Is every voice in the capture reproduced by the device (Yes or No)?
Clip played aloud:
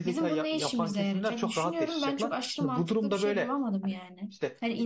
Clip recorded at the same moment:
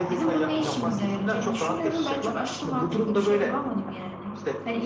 Yes